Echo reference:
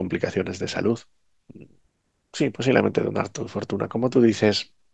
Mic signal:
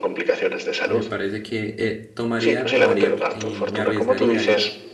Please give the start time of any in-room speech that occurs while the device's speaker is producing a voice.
0.8 s

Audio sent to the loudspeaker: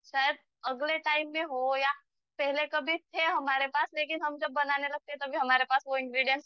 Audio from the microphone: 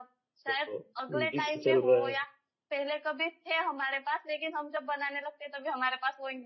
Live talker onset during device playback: 0.5 s

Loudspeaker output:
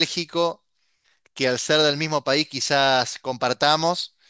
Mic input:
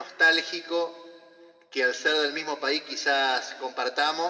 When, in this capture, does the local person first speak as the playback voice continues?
none

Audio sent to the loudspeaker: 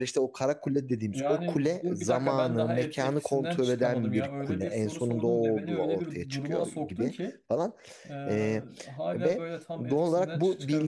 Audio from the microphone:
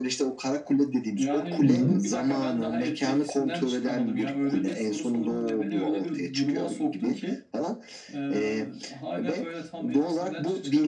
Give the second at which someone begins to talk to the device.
1.6 s

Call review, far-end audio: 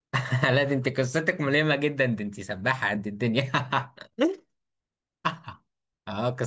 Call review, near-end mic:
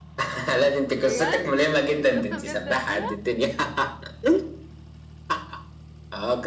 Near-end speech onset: 0.9 s

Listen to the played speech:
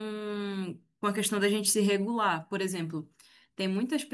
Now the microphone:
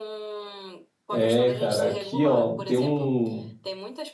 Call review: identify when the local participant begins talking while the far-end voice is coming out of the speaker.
1.1 s

